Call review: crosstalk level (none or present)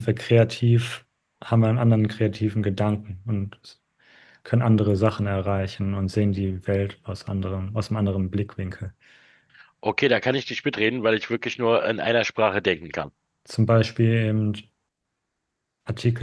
none